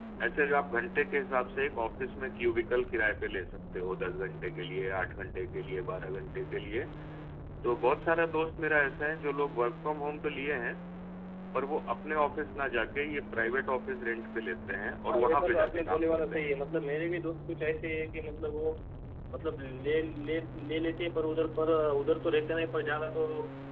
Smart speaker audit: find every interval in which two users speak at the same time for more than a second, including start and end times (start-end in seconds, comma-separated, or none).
15.1-16.5